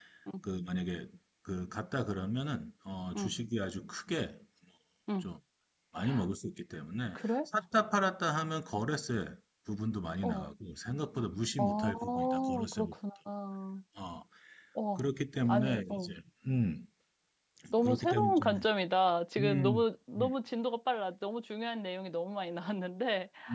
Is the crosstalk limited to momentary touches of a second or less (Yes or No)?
No